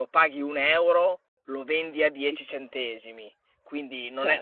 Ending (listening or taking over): listening